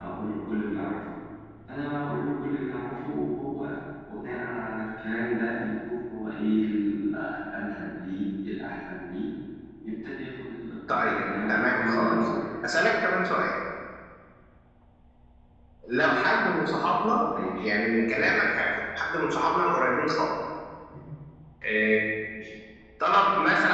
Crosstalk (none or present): present